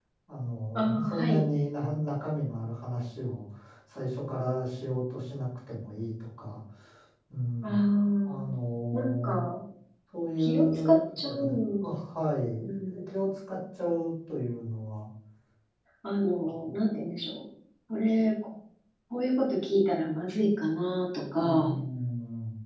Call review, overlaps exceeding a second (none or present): present